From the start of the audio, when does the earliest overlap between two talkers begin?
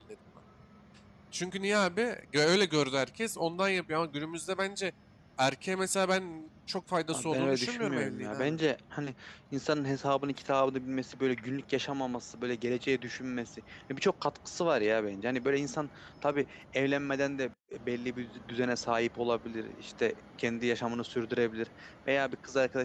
7.1 s

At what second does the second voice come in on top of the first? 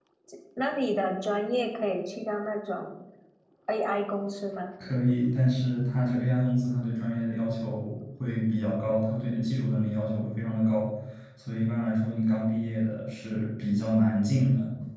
none

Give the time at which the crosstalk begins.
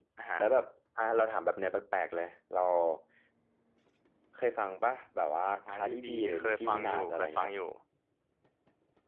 5.4 s

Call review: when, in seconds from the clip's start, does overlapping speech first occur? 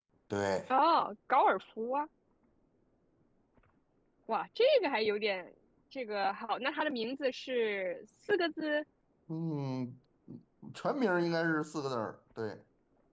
none

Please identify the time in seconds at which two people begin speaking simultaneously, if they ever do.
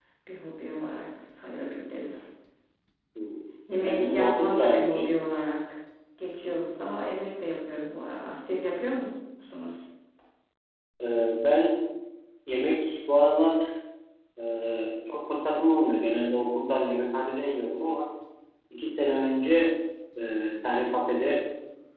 3.7 s

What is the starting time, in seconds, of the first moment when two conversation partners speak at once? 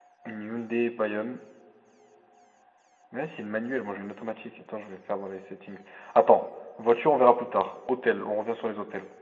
none

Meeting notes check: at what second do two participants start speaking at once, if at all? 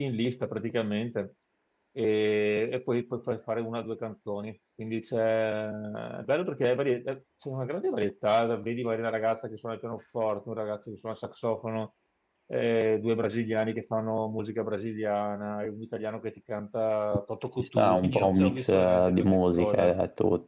17.6 s

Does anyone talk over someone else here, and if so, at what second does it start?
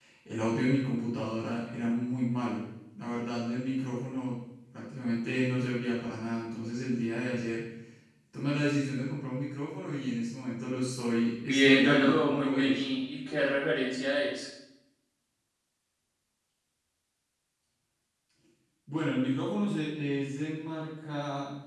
11.4 s

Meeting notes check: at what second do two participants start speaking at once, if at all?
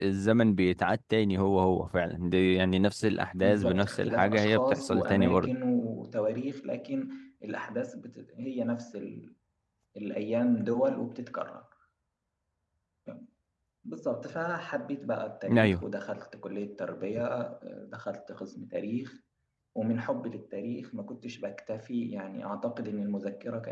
3.4 s

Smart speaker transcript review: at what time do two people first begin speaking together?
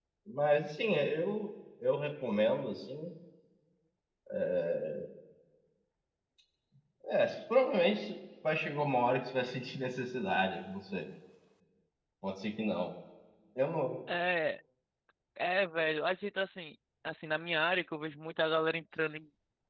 none

